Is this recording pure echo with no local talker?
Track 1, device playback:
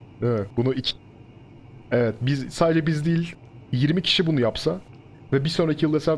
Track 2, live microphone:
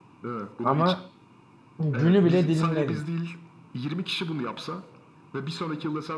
No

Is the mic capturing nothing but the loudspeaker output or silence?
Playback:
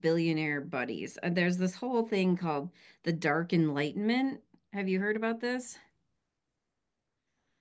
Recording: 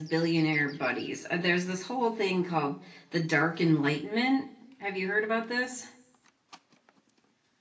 Yes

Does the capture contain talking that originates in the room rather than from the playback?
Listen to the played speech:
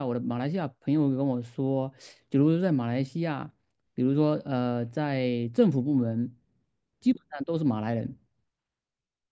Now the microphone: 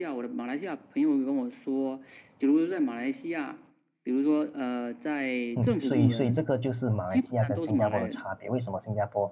Yes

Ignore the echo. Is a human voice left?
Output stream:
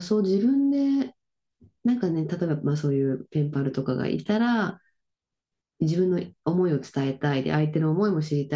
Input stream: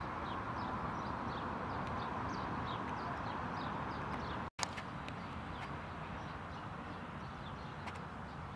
No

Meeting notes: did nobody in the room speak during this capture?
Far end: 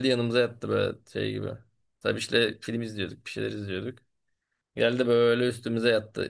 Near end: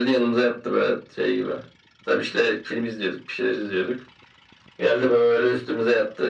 Yes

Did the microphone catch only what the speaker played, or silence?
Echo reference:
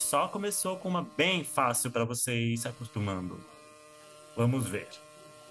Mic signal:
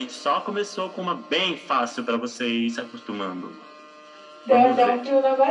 No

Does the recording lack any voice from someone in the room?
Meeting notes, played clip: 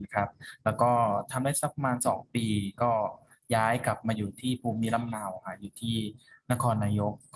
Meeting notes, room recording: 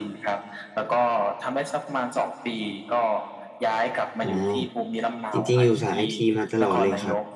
No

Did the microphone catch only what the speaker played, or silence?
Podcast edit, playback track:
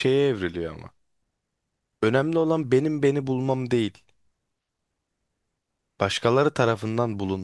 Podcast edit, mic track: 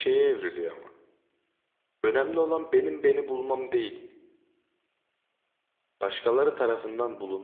Yes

